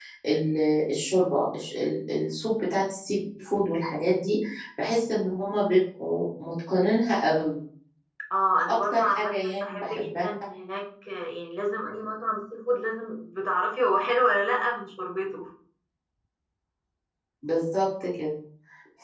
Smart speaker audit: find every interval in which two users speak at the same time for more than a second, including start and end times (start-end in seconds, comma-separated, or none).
8.7-10.2